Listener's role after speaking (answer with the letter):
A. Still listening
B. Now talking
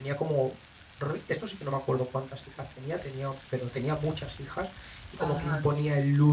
A